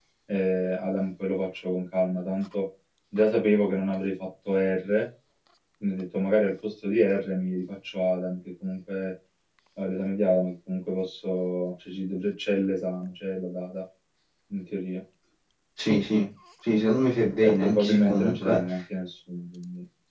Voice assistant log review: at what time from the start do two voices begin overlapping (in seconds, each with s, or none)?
17.4 s